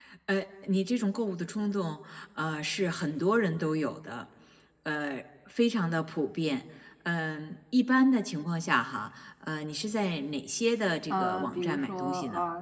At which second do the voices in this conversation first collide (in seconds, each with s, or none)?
11.1 s